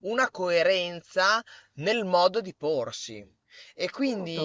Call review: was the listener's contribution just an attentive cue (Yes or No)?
Yes